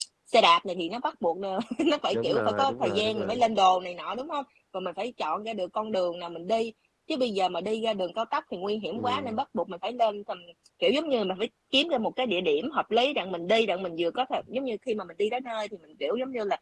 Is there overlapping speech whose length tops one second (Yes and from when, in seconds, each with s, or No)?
Yes, from 2.1 s